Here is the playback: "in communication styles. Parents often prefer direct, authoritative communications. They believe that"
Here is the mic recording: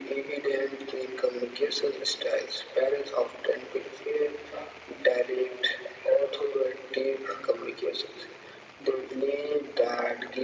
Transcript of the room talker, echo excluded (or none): none